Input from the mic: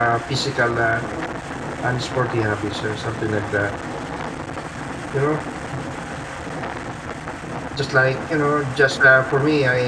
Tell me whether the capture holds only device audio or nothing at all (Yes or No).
No